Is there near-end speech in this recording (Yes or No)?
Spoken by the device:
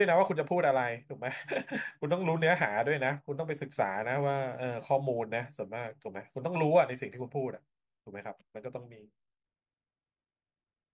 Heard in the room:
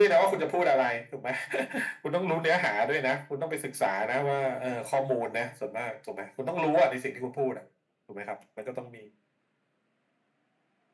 No